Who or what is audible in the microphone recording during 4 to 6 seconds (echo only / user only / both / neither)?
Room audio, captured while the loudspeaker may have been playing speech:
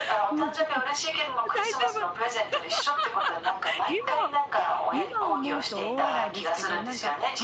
both